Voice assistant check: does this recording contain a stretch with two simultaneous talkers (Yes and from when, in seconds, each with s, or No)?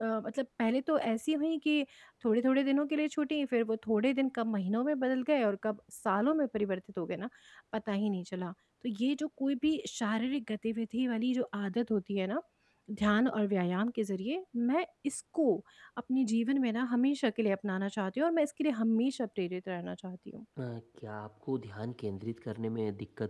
No